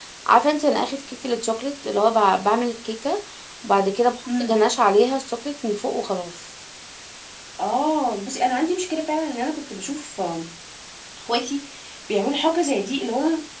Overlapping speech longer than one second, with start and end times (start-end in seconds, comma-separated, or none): none